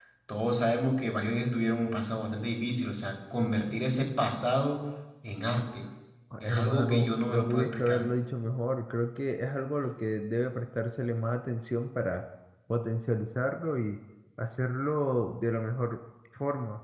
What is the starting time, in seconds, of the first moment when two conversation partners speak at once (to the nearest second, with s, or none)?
6 s